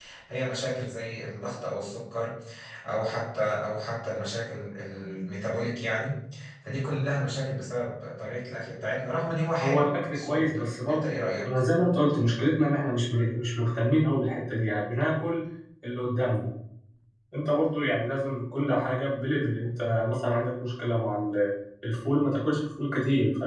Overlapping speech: Yes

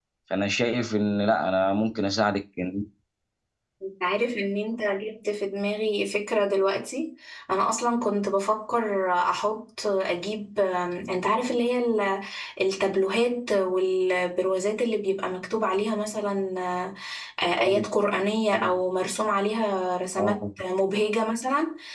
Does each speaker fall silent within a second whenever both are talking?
Yes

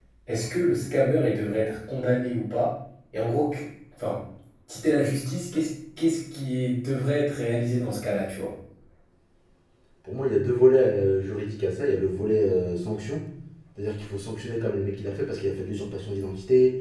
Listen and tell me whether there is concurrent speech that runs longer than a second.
No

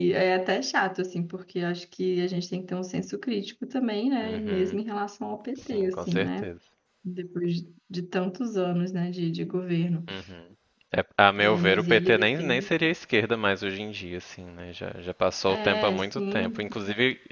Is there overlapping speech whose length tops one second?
Yes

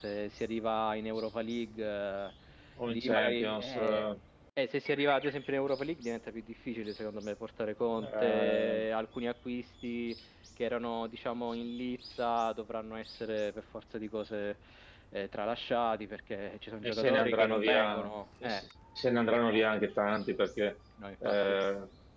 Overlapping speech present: Yes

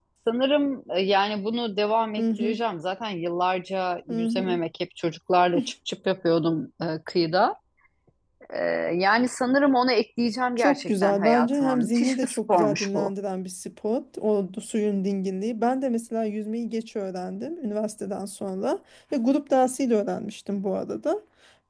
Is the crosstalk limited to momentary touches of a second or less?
No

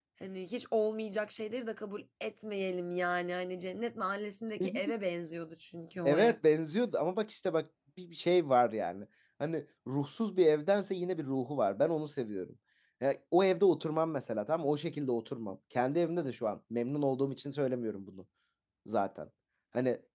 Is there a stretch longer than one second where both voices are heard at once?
No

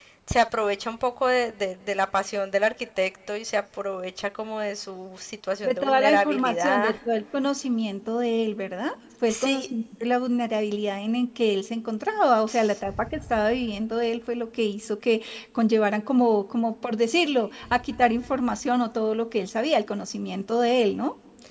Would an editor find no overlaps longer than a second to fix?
No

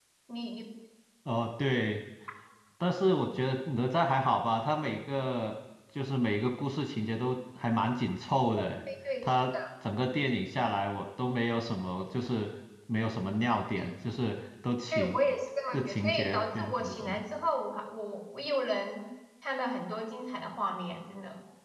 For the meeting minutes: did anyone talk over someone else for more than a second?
Yes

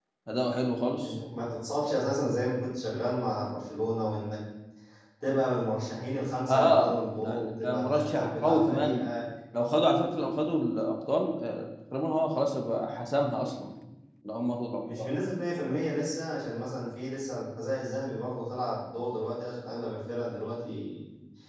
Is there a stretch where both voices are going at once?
Yes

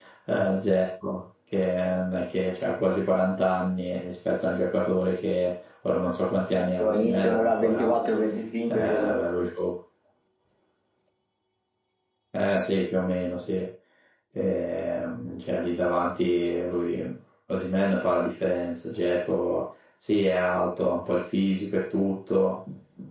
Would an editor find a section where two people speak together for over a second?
Yes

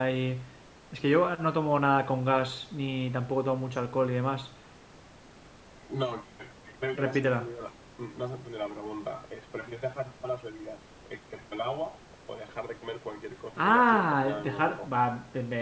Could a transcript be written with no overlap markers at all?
No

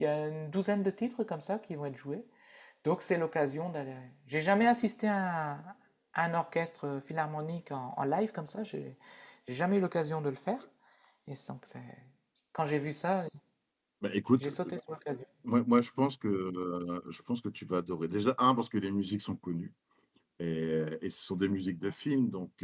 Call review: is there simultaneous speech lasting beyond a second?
No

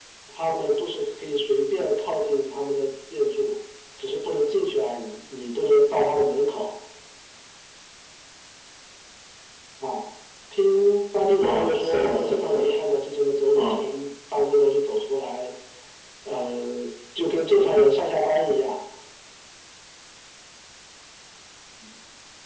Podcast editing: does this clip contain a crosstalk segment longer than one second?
Yes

